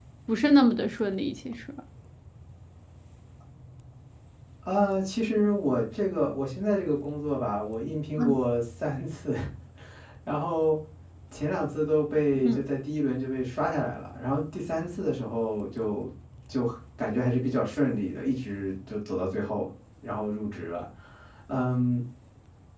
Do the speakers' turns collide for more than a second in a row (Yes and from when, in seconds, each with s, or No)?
No